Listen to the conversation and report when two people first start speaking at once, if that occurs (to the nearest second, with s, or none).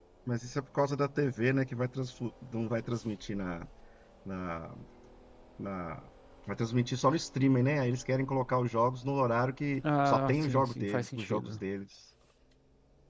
10 s